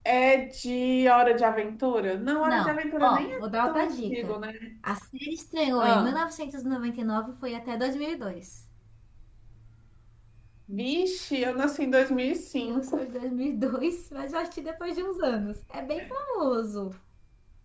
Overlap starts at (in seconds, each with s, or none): 2.4 s